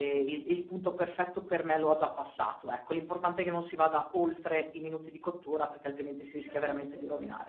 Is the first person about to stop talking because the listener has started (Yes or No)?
Yes